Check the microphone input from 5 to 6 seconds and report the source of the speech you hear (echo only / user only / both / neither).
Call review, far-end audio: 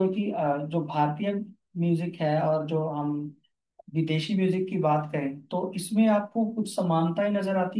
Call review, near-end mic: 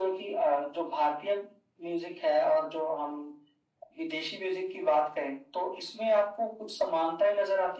echo only